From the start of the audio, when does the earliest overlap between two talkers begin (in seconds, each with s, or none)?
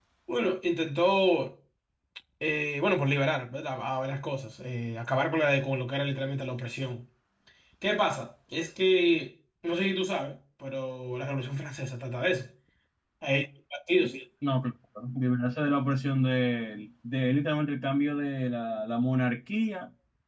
none